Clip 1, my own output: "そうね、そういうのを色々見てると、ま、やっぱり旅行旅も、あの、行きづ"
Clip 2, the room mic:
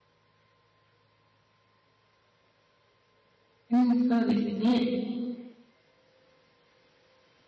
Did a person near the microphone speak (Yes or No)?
Yes